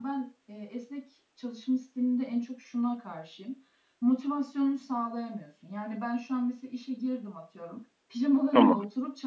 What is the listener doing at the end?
listening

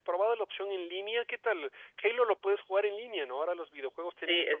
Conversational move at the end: taking over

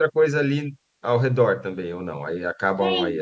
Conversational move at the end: taking over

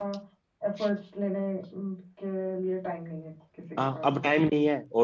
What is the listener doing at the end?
taking over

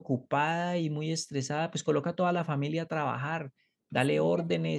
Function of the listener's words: listening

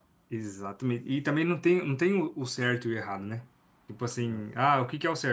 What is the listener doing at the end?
listening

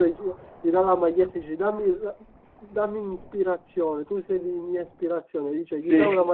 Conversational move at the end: listening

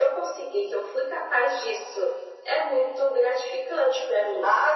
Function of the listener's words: taking over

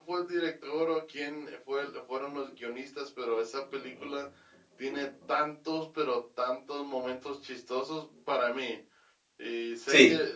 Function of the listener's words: listening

